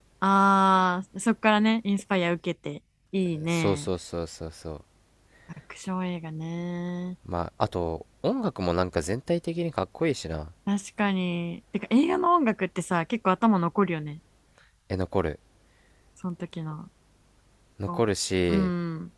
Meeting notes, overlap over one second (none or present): none